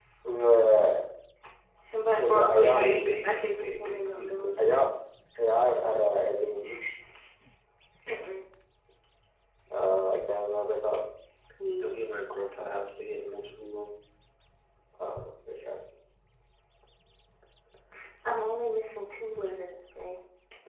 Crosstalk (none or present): present